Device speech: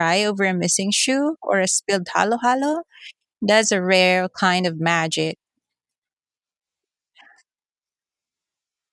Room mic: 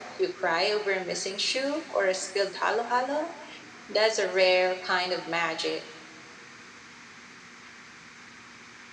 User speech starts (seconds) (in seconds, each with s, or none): none